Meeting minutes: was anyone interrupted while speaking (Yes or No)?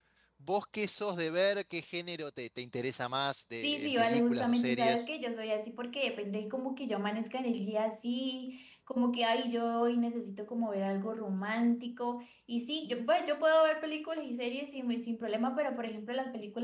Yes